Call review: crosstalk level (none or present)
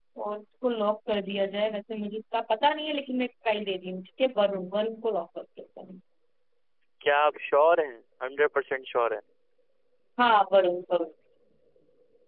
none